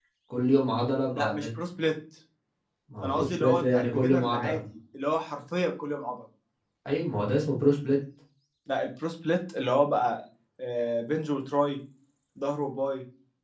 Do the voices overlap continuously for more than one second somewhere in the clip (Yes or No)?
Yes